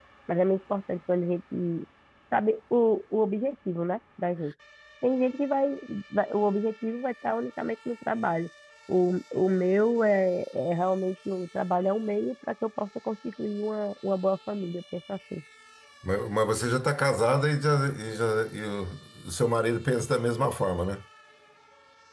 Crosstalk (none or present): none